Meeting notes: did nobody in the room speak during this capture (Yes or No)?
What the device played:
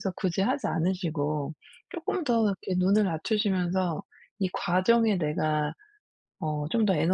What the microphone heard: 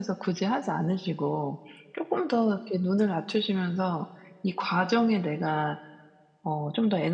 Yes